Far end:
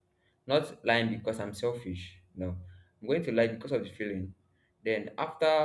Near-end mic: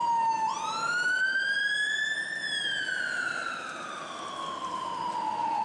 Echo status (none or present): none